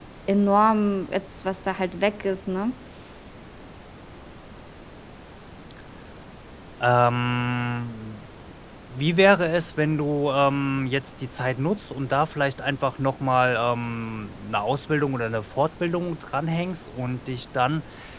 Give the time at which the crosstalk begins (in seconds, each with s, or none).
none